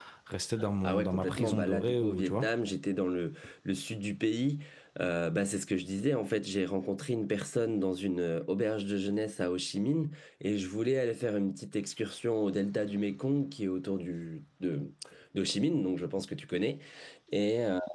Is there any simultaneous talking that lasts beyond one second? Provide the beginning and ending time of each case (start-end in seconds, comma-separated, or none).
0.8-2.5